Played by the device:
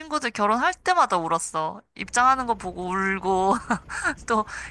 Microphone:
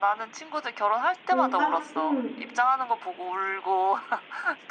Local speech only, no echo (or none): 눈 깜, 응.